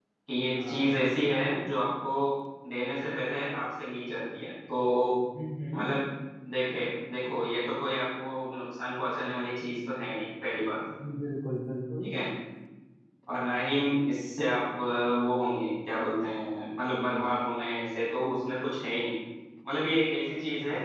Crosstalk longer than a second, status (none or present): none